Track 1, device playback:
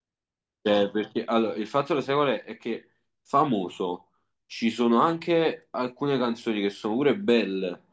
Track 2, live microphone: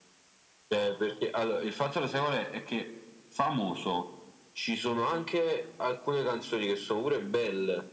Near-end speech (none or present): none